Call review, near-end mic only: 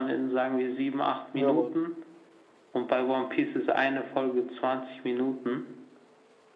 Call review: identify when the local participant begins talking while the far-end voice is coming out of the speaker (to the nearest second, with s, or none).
1 s